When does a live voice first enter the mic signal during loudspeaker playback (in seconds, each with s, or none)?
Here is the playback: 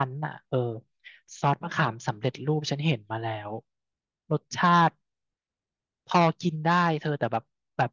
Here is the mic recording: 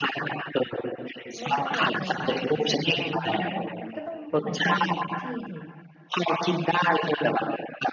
1.4 s